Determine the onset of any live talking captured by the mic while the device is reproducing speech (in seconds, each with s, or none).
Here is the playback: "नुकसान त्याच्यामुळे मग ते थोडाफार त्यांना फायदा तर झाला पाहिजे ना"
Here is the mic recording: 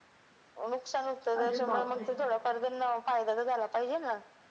1.4 s